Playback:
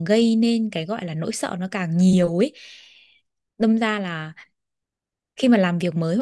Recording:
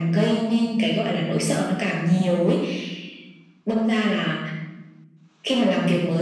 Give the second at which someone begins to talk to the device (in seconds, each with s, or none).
none